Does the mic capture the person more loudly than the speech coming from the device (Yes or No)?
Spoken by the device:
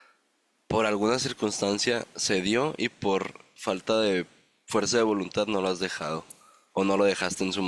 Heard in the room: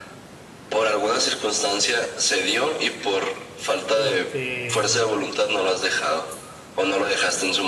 No